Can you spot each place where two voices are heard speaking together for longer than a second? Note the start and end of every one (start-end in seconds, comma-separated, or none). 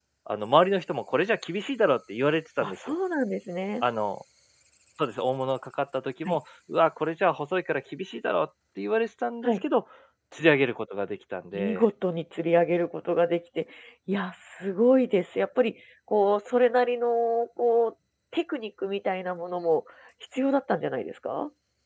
none